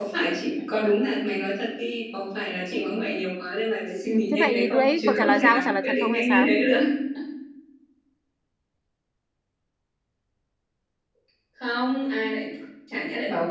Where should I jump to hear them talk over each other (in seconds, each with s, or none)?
4.1 s